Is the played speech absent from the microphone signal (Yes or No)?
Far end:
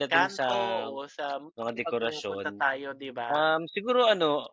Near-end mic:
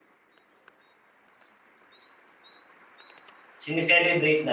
Yes